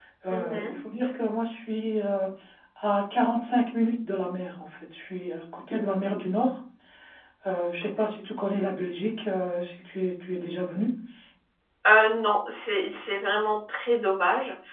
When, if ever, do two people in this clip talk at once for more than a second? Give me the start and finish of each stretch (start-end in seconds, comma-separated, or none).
none